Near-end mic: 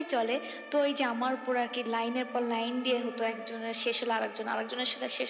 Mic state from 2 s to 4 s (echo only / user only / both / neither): echo only